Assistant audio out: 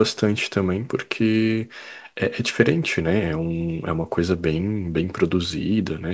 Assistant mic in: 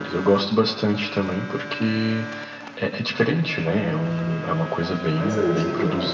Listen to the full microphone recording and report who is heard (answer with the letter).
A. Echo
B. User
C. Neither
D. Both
D